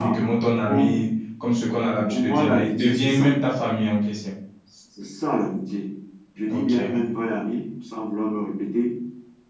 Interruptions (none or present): present